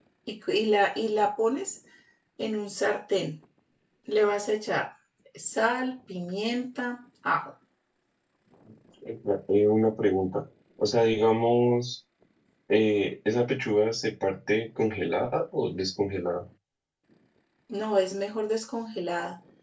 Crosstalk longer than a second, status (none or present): none